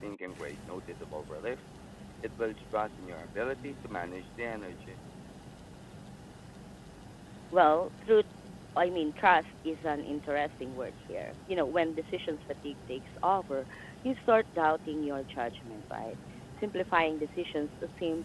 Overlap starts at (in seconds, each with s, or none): none